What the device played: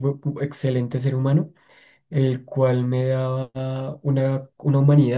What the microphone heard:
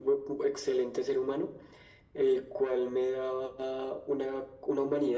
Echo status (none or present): present